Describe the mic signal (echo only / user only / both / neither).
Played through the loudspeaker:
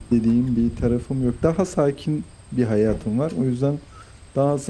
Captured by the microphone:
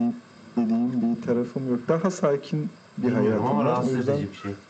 both